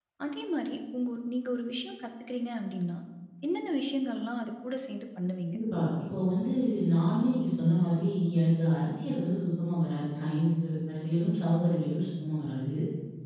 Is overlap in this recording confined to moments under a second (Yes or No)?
Yes